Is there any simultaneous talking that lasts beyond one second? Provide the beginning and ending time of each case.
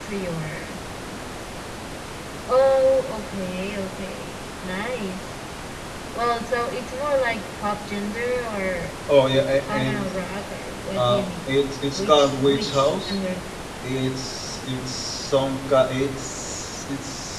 11.9-13.2

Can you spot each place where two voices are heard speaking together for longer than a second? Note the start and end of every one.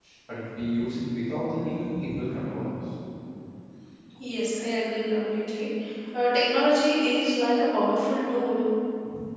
none

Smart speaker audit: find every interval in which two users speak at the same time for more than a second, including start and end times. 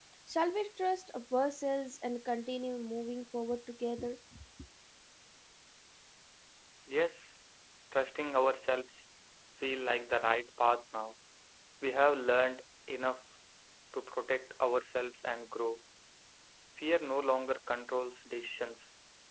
none

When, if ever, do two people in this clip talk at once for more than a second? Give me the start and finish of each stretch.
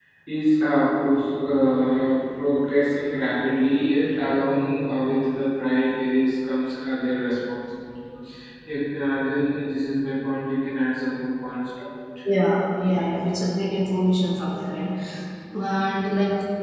none

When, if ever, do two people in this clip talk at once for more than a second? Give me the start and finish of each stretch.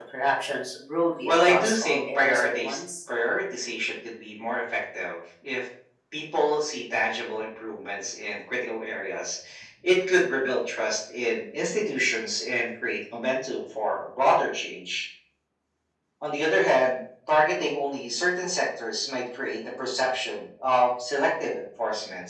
1.2-2.8

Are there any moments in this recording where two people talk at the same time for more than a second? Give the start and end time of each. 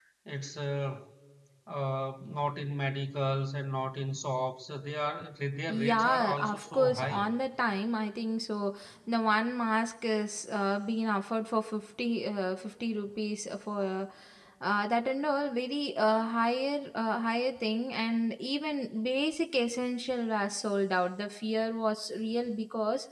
5.7-7.2

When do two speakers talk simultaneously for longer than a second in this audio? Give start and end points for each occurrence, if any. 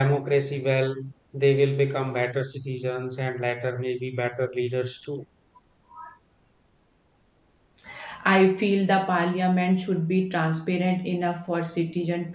none

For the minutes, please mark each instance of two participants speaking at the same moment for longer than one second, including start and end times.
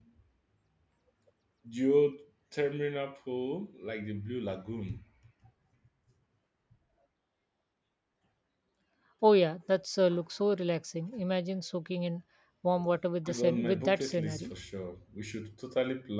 13.3-14.5

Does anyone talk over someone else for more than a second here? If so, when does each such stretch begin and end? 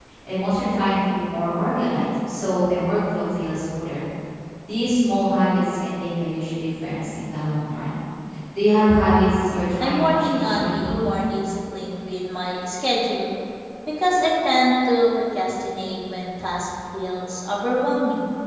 9.8-11.1

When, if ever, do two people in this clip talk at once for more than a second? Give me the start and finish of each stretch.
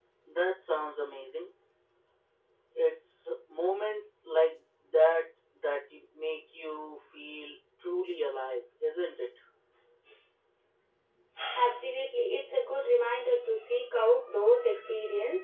none

